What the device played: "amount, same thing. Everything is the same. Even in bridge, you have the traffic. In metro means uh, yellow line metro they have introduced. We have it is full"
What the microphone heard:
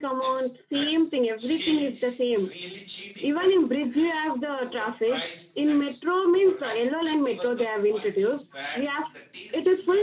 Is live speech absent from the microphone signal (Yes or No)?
No